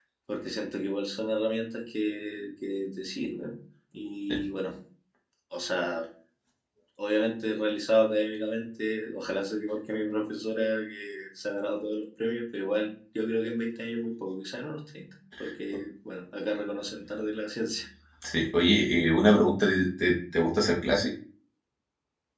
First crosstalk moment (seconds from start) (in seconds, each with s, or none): none